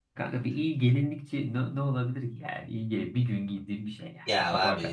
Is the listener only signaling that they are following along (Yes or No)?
No